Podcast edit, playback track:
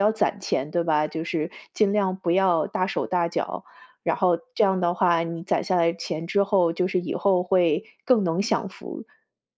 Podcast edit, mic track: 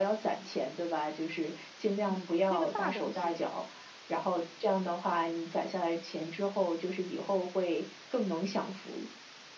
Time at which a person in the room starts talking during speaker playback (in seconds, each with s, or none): 2.1 s